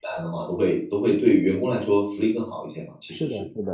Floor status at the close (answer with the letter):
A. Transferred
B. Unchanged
A